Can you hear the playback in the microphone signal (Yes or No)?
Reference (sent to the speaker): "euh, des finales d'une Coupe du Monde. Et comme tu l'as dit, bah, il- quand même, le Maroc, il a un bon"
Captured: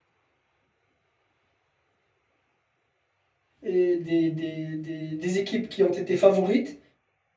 No